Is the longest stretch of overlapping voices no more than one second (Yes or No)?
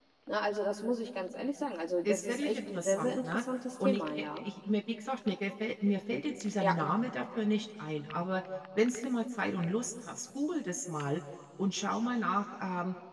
No